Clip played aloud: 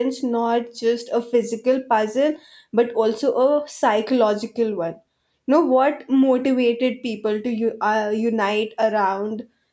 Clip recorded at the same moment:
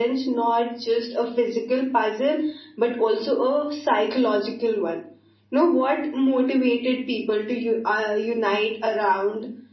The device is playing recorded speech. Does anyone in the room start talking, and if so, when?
none

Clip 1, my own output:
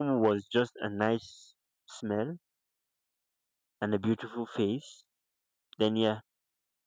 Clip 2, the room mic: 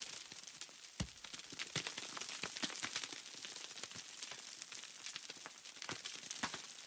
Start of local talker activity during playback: none

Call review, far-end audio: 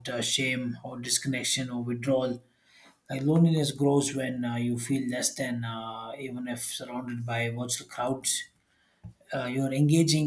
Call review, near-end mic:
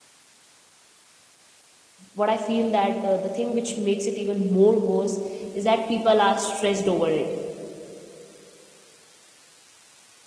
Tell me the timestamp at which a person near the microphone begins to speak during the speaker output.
2 s

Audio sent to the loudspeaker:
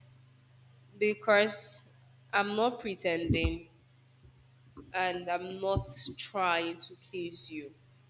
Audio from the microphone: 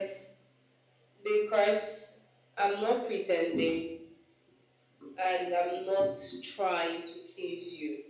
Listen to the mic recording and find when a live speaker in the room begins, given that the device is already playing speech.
none

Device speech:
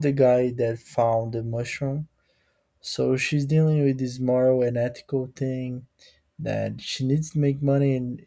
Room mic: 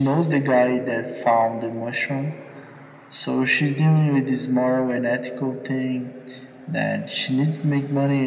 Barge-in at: none

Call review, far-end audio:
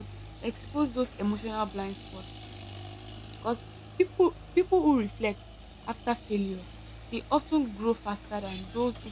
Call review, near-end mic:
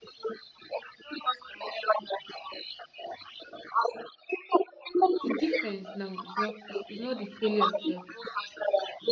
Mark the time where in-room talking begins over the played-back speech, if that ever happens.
5 s

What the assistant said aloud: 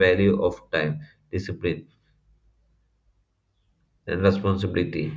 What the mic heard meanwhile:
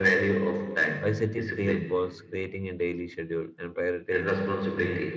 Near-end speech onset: 1 s

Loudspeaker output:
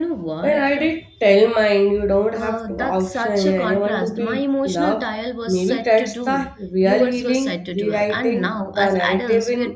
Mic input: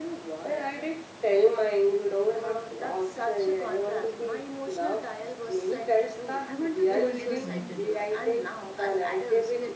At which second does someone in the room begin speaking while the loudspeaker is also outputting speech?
6 s

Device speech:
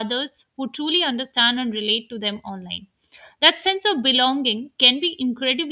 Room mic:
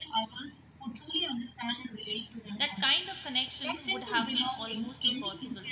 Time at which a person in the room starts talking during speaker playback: 3 s

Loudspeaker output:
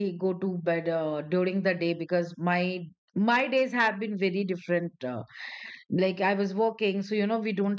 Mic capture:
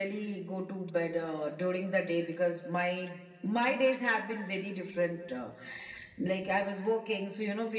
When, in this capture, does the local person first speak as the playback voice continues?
none

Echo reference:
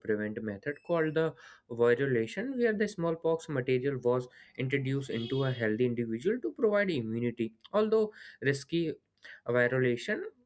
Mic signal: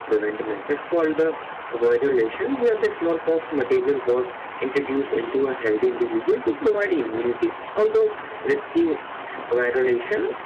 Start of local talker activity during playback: none

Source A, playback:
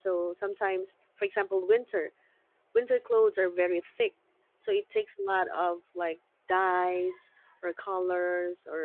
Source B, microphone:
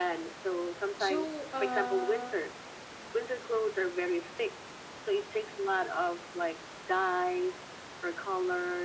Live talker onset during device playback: 1 s

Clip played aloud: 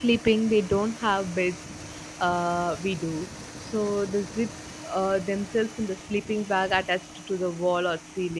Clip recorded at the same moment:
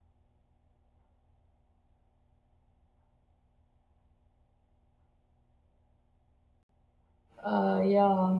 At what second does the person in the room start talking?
7 s

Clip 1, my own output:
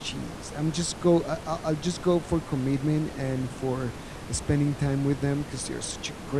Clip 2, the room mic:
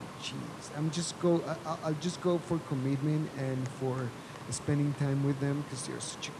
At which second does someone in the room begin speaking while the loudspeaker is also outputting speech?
none

